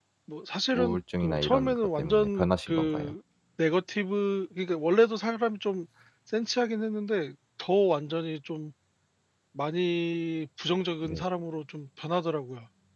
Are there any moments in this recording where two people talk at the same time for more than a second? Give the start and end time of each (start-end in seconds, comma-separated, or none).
0.7-3.1